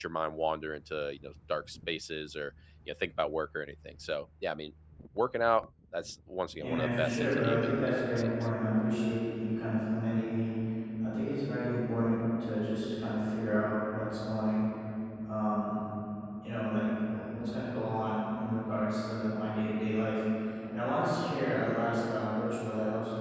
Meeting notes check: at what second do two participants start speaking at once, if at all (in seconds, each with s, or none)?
6.6 s